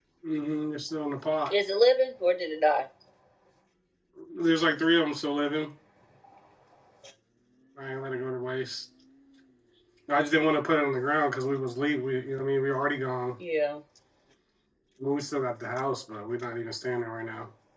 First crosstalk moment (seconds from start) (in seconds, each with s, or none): none